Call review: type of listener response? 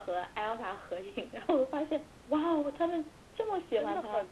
taking over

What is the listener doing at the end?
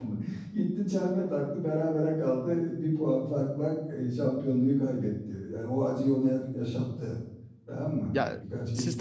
taking over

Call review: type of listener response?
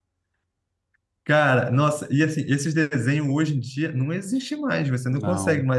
listening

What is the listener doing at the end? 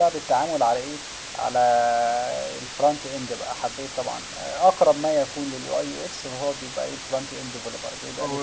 taking over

